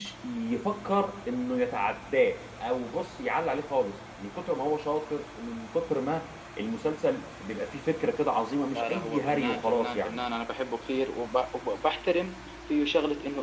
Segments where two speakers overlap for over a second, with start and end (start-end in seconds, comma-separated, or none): 8.8-10.2